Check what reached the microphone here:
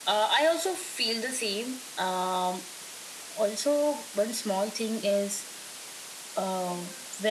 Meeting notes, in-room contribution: none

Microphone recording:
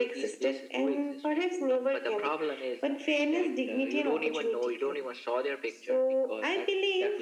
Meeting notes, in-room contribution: none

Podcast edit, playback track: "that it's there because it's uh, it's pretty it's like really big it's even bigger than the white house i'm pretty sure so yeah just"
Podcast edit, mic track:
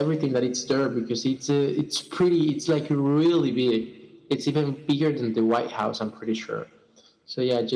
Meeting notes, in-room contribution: none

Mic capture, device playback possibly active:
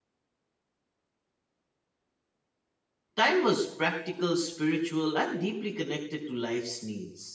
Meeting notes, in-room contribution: present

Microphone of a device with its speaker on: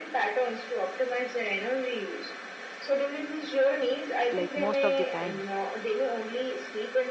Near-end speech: present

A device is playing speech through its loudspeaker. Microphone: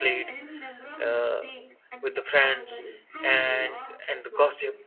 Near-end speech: present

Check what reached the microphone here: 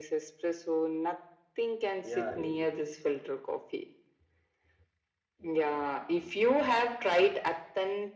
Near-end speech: present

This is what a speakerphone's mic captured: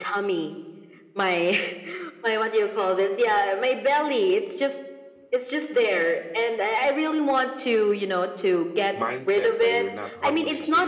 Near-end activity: present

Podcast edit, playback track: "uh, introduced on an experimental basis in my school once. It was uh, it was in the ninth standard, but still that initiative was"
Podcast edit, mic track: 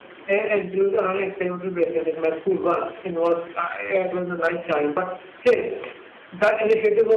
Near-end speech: none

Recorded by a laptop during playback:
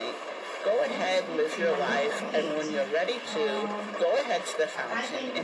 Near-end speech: present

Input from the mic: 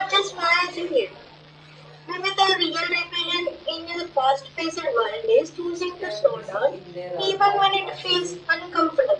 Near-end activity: present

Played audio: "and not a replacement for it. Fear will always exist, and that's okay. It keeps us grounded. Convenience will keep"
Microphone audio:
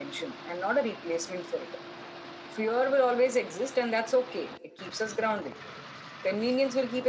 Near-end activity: none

